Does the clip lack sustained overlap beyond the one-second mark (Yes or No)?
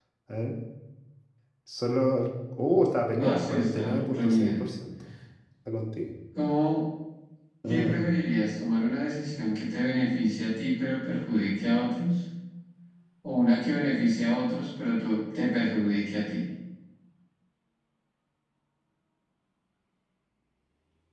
No